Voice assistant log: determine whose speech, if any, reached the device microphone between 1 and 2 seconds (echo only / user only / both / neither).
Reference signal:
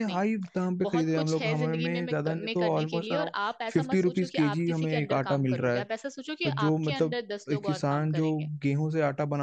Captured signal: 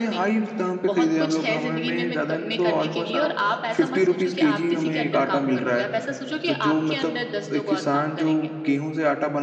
echo only